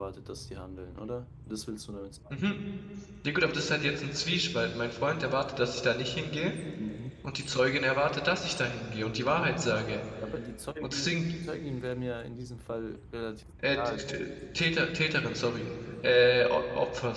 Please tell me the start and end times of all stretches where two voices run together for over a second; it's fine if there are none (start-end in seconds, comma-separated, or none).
none